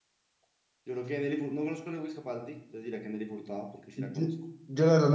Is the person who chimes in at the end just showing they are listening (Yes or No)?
No